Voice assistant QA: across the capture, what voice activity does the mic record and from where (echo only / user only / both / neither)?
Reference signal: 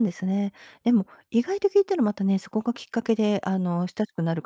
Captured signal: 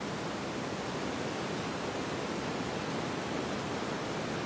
neither